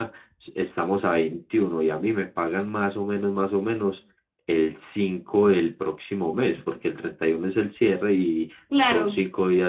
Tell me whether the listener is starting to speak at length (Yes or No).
No